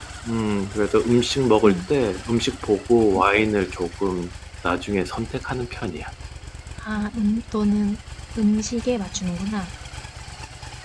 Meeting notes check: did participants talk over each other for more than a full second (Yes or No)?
No